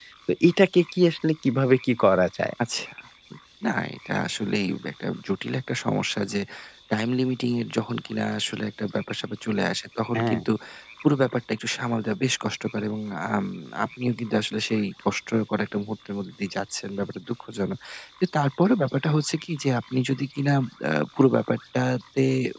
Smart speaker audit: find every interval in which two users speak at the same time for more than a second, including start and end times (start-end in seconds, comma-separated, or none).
none